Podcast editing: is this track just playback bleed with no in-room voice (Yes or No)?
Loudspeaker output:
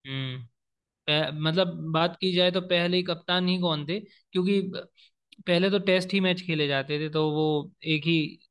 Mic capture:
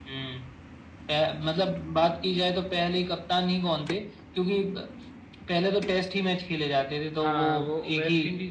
No